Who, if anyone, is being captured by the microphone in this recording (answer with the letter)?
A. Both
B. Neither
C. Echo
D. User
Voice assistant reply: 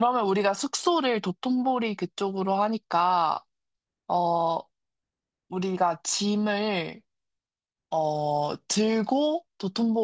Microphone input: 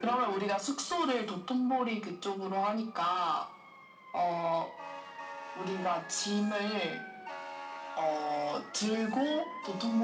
C